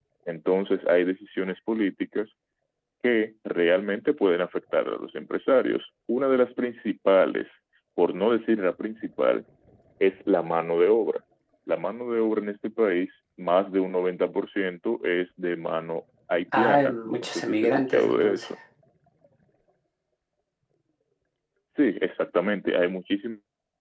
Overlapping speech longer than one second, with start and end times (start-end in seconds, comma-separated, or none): 16.5-18.5